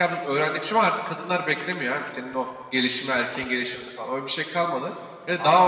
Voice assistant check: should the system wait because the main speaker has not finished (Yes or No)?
No